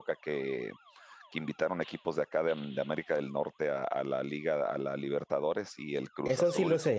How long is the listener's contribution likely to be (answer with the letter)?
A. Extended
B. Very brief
A